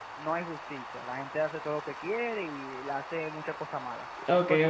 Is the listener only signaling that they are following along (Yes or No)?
No